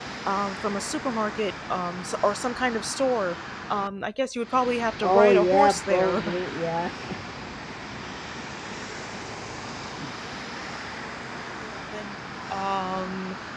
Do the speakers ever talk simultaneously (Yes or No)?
Yes